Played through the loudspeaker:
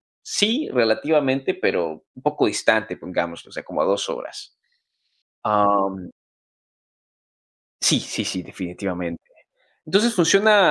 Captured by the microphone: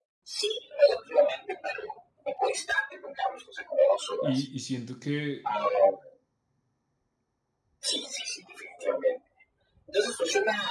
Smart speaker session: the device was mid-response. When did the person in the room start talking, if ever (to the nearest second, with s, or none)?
4 s